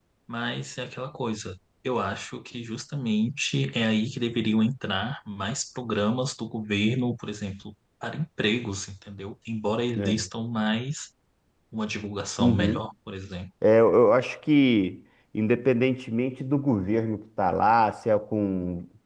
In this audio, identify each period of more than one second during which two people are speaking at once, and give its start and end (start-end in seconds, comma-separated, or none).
none